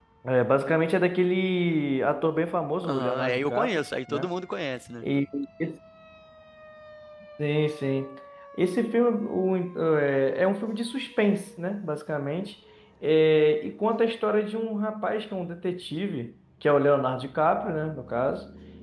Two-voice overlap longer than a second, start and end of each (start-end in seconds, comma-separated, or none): 2.9-4.3